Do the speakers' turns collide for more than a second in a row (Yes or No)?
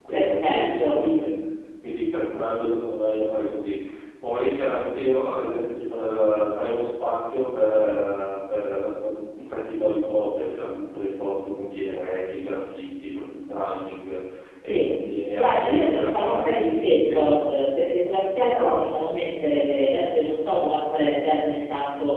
Yes